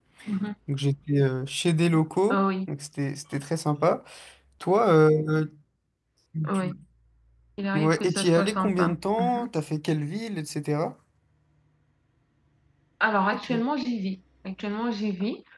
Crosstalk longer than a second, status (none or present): present